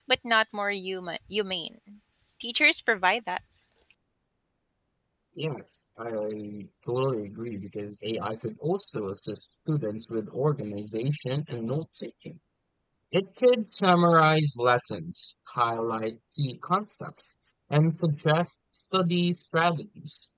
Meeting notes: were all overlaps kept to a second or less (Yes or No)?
Yes